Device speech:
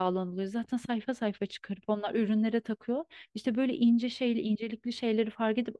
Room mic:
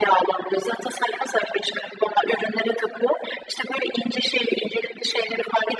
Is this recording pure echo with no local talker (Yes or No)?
Yes